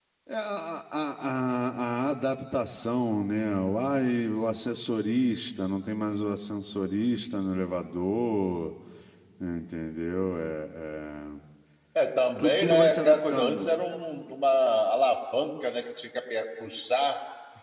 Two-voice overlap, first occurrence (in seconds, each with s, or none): 12.4 s